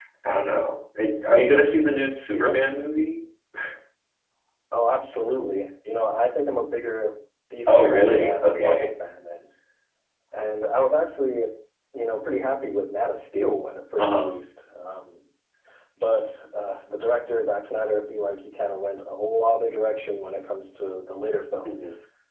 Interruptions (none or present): present